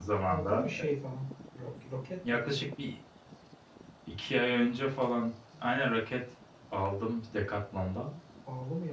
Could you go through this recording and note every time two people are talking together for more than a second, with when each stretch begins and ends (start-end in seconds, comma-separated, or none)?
none